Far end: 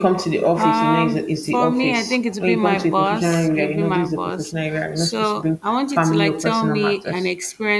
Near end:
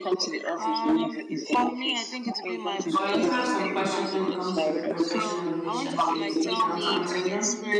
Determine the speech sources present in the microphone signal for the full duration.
both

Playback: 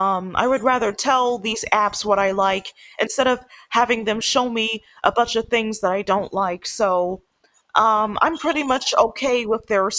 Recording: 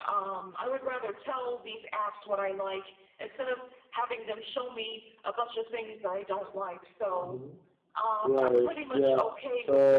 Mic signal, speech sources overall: both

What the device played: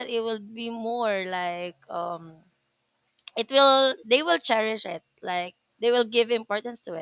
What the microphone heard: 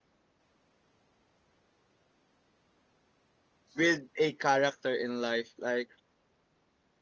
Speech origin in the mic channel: user only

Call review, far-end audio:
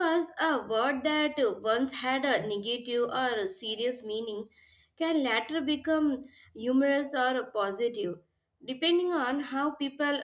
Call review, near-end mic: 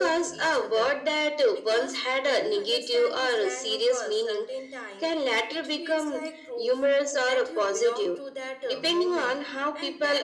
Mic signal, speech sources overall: both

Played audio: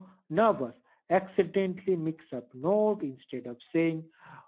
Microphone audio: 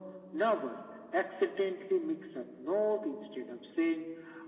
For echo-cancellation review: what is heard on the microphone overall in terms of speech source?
echo only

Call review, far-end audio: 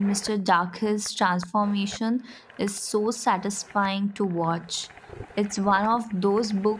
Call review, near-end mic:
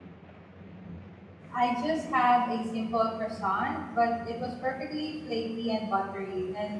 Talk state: user only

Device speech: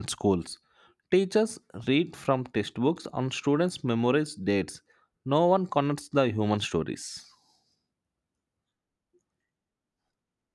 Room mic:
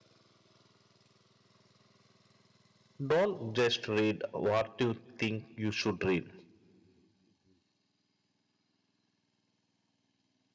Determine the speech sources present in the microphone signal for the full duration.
user only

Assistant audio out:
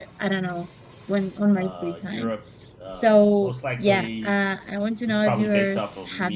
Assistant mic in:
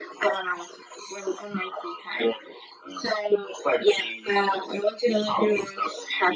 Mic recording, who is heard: echo only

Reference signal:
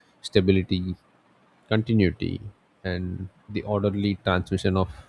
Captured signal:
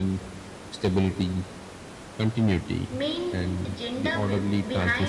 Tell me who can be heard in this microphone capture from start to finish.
both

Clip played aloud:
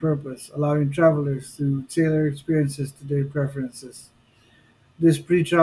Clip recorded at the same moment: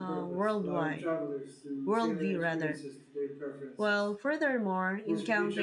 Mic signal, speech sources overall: both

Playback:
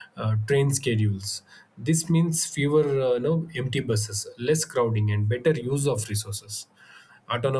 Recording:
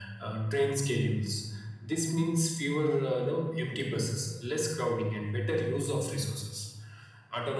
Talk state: echo only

